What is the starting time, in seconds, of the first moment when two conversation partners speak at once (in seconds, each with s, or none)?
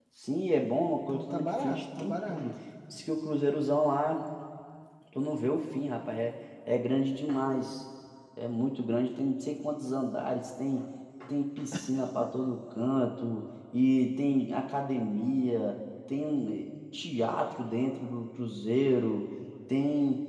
1.1 s